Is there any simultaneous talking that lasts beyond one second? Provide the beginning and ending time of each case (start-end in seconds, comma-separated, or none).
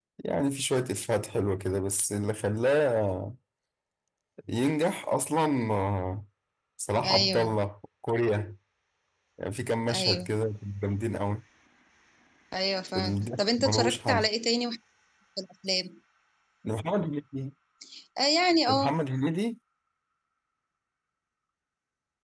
12.9-14.3